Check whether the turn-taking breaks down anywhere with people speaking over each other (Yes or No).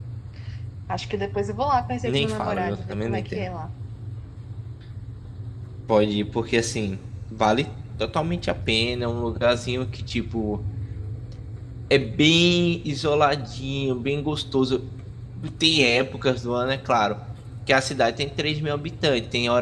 Yes